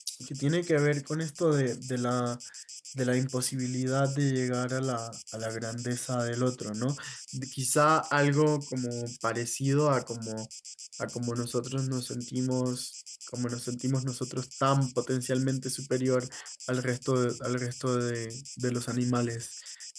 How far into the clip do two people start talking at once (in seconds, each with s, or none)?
none